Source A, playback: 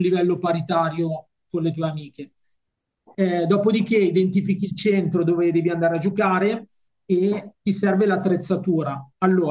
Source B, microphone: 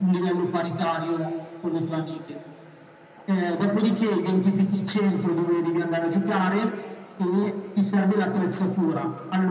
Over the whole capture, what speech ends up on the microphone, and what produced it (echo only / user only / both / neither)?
echo only